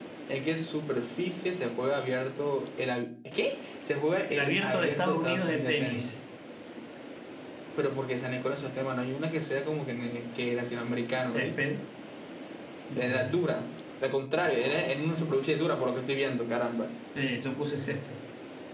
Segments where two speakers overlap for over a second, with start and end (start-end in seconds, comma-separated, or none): 4.3-6.1